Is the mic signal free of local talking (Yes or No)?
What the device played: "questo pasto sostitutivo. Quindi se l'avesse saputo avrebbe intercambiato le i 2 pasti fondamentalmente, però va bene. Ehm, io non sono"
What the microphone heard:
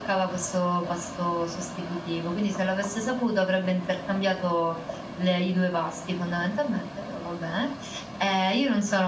Yes